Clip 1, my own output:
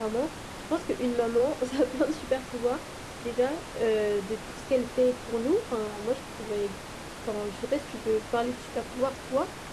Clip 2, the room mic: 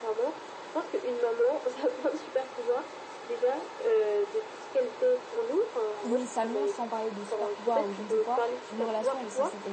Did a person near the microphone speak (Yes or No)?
Yes